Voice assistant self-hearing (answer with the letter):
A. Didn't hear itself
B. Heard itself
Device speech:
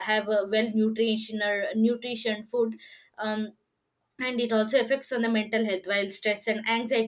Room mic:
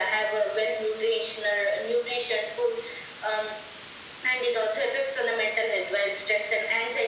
B